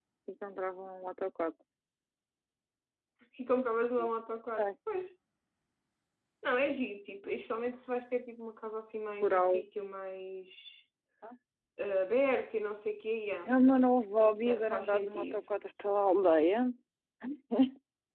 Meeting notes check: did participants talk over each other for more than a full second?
Yes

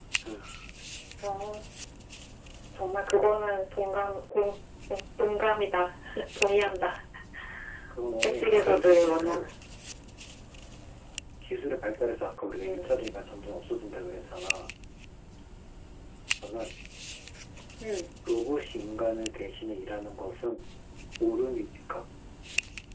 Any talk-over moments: Yes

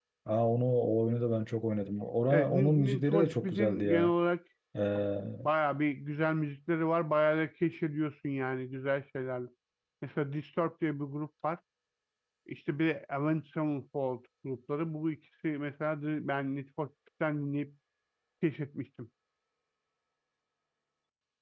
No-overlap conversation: No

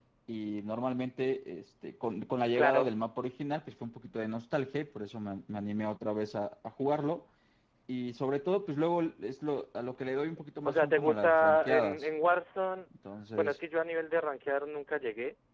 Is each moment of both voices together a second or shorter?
No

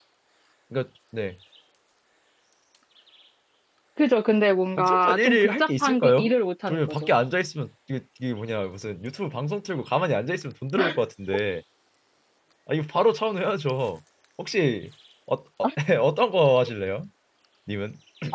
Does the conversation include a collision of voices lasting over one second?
Yes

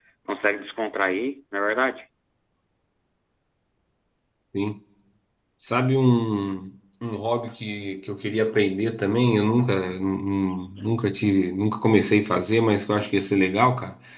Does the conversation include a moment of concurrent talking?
No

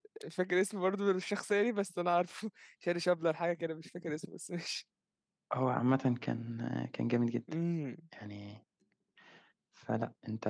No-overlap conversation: Yes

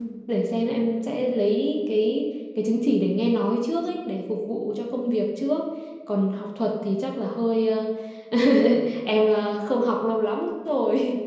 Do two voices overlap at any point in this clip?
No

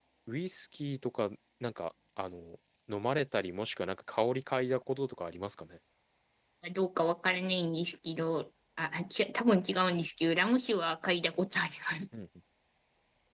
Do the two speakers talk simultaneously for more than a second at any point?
No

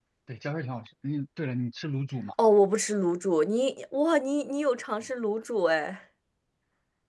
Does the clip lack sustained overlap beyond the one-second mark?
Yes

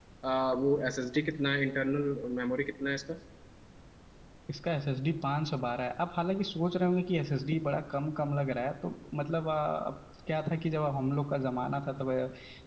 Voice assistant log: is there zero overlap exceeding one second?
Yes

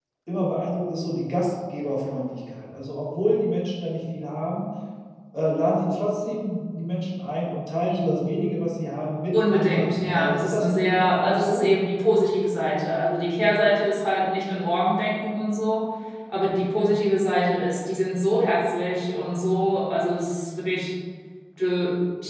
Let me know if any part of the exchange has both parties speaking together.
Yes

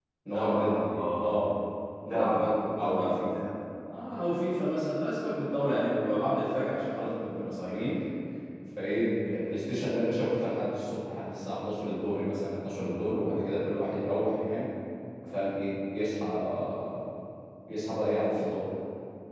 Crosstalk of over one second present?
Yes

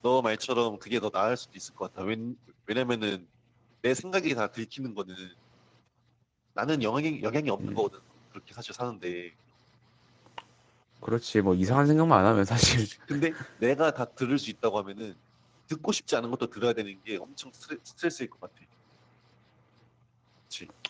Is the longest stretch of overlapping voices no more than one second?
Yes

